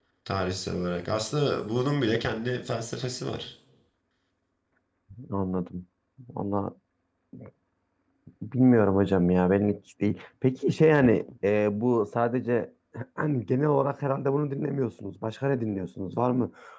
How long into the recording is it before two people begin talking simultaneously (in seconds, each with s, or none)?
none